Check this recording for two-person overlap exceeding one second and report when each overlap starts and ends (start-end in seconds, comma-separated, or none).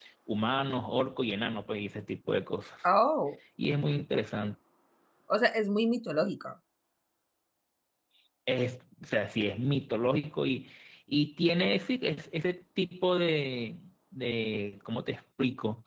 none